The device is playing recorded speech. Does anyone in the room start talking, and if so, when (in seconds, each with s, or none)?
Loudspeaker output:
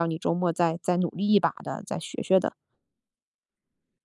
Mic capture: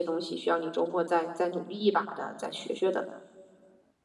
none